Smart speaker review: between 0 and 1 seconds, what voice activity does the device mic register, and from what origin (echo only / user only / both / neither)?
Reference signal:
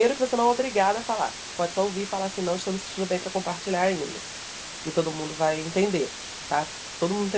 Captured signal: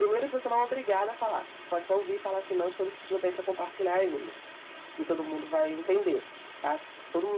echo only